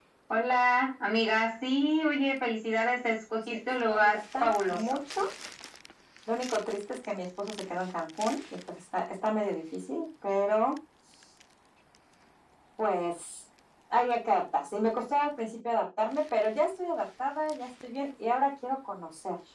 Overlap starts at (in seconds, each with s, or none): 3.5 s